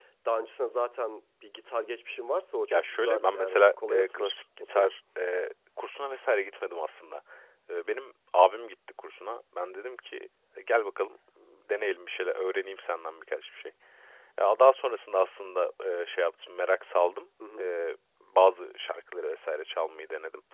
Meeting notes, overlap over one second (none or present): present